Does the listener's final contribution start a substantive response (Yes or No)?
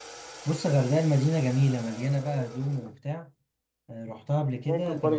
Yes